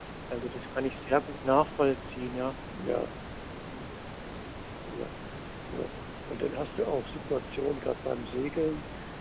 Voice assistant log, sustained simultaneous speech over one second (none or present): none